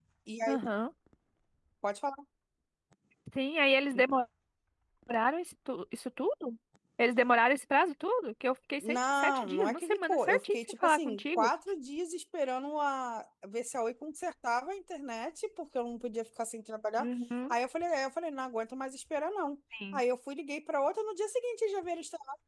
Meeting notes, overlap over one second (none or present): present